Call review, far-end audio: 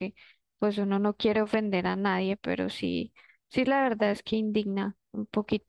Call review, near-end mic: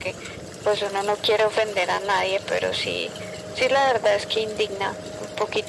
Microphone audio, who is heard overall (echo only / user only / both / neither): echo only